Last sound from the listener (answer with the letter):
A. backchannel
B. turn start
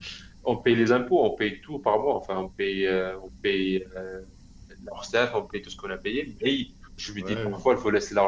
A